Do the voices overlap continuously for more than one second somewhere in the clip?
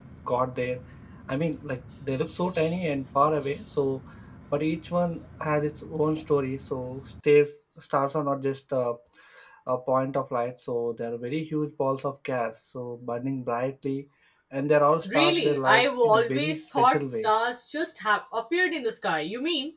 Yes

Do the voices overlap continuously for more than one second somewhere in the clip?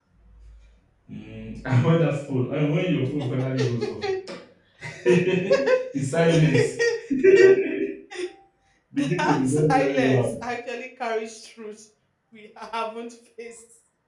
Yes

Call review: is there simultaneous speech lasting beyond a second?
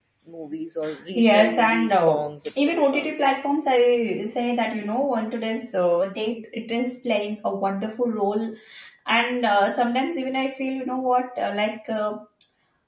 Yes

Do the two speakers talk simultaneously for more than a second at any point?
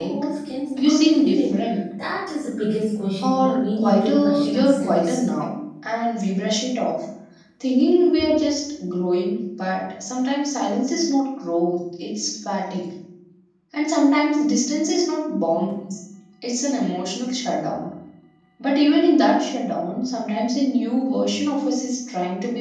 Yes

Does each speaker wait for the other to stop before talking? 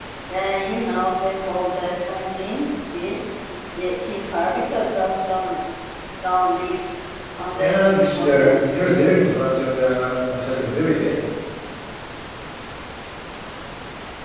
No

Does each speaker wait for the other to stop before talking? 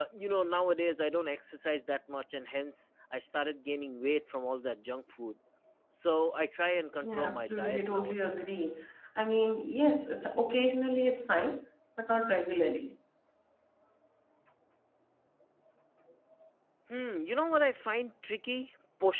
No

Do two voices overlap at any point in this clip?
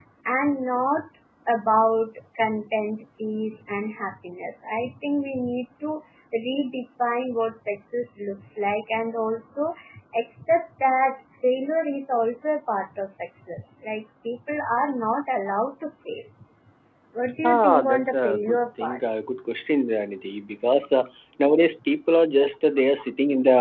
Yes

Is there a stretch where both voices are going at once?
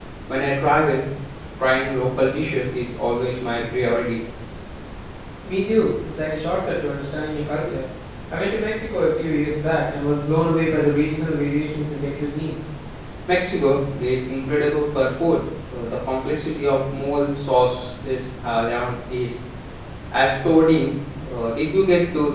No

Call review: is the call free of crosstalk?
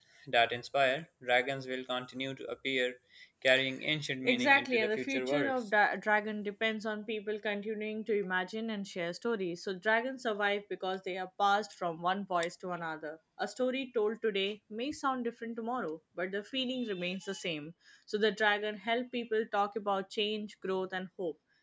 No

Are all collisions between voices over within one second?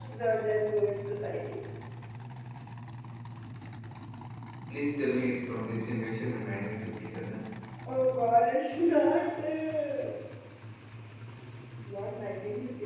Yes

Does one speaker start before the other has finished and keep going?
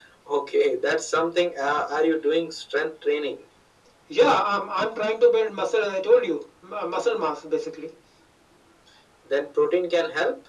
No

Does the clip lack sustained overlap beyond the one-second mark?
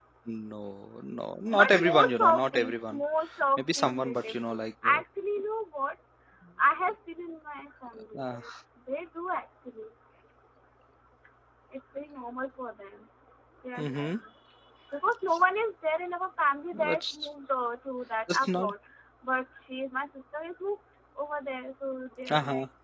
No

